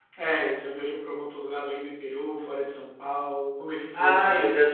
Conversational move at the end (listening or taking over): taking over